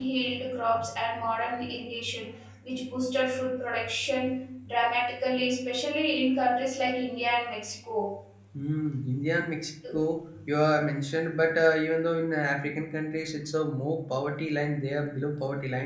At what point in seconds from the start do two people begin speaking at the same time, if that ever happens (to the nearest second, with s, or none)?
none